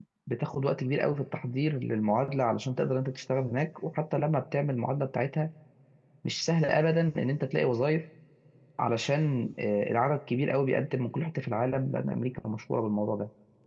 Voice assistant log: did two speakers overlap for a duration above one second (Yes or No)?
No